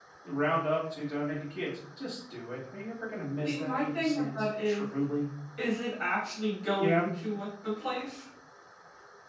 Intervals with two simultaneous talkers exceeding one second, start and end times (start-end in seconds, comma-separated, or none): 3.4-4.9